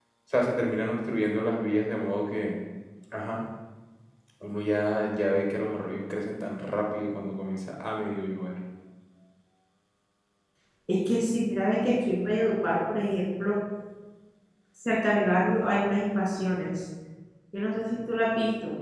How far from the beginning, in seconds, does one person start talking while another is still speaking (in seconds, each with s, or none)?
none